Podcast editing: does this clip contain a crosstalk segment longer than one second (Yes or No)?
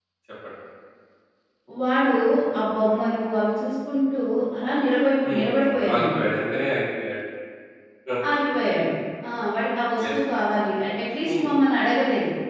No